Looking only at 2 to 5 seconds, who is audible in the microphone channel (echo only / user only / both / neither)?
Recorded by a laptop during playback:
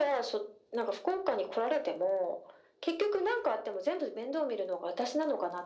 echo only